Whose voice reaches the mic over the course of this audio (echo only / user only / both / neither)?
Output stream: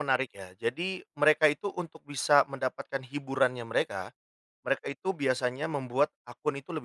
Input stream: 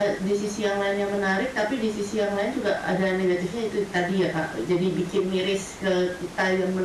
user only